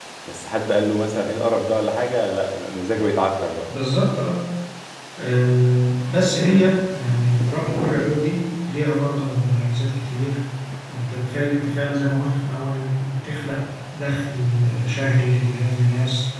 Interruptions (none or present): none